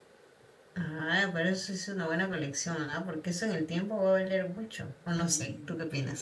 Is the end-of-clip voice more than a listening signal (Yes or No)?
Yes